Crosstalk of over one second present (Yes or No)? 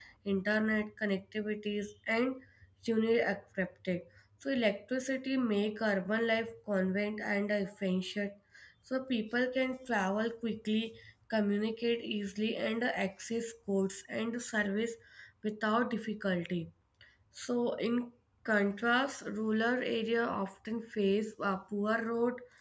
No